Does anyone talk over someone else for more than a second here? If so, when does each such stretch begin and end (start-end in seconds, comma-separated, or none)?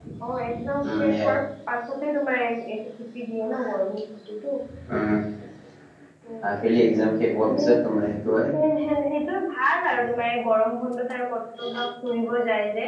none